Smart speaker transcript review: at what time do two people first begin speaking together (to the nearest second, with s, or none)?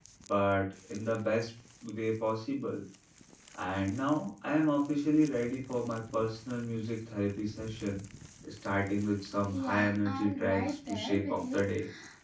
10 s